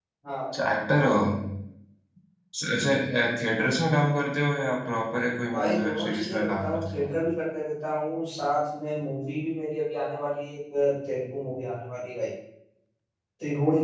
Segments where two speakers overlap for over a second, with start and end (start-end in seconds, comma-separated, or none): 5.5-7.1